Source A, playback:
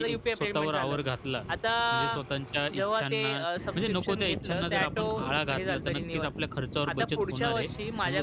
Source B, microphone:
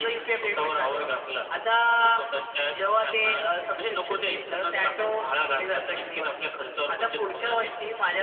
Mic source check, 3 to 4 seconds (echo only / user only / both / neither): echo only